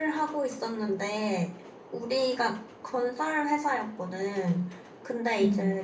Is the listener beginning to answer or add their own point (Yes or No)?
No